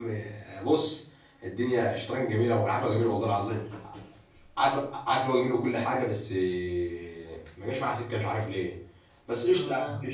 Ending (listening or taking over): listening